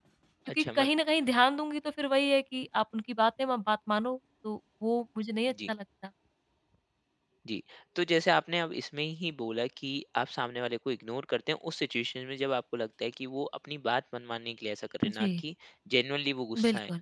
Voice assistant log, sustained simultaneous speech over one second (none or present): none